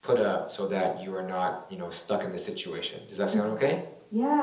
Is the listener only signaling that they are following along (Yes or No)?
No